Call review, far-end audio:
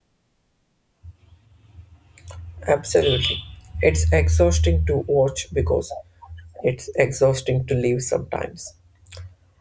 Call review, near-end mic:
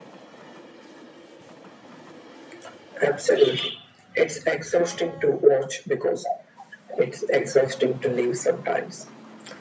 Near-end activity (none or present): none